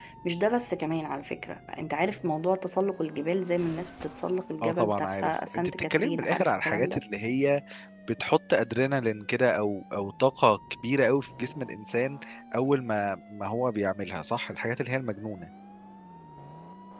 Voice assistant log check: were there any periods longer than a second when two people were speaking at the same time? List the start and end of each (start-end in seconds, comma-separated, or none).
4.6-7.0